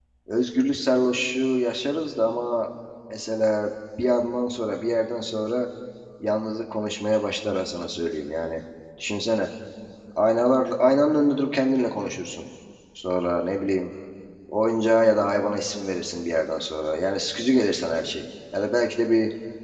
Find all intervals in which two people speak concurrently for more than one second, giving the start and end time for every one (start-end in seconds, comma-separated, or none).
none